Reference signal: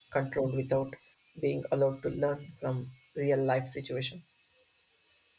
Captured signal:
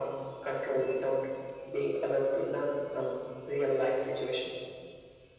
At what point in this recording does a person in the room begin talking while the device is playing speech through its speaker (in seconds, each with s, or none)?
none